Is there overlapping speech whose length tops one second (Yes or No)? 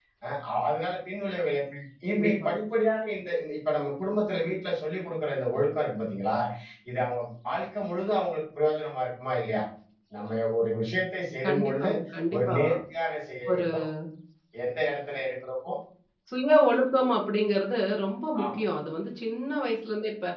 No